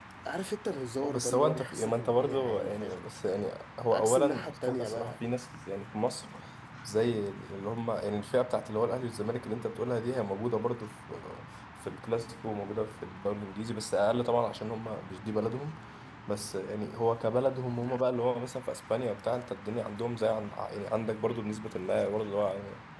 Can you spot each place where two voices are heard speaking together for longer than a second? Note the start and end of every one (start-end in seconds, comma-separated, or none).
1.1-3.0, 3.9-5.2